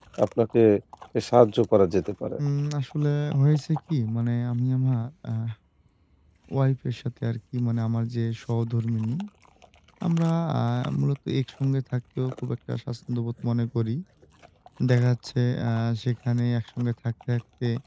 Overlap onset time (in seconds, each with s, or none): none